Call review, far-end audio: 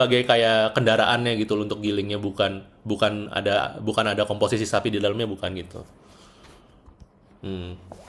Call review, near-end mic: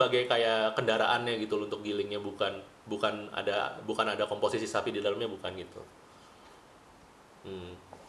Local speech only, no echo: none

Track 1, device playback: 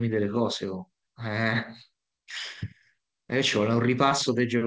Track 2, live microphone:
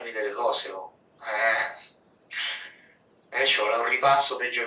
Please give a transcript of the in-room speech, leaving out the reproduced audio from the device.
none

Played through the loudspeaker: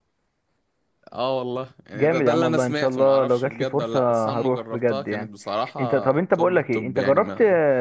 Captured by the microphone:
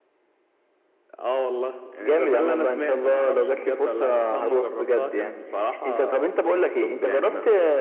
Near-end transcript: none

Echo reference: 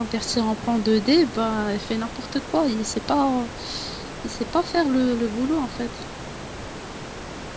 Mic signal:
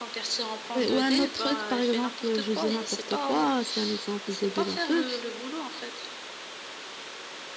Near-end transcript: Ouais, ou un autre truc, par exemple, je dis n'importe quoi, c'est un exemple débile un peu.

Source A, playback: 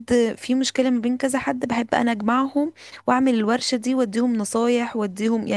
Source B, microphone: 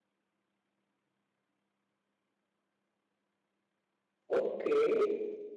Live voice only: اوكي

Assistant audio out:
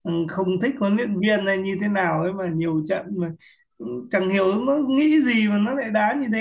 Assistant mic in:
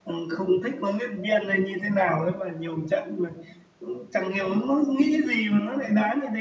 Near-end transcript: none

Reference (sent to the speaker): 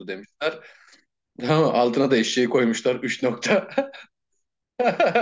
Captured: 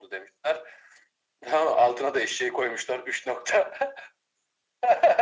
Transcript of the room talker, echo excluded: none

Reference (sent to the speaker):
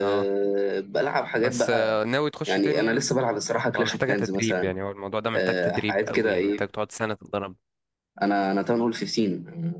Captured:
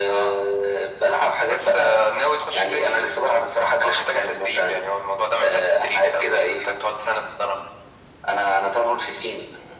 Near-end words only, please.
none

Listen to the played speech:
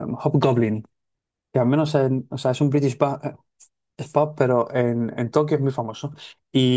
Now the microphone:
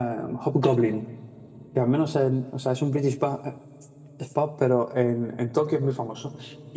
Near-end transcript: none

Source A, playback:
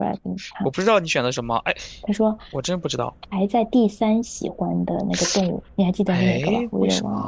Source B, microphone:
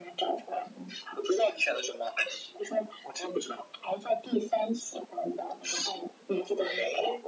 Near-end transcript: none

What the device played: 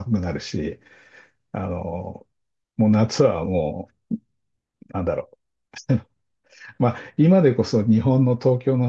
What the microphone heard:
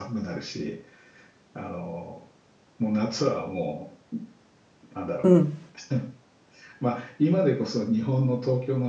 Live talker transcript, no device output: うん。

